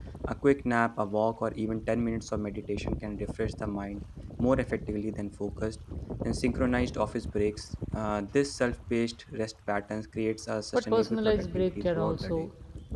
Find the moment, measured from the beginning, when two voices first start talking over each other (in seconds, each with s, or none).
10.7 s